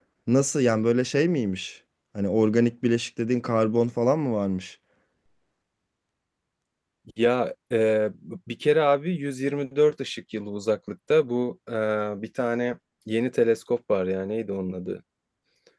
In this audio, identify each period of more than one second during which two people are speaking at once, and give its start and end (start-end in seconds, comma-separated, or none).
none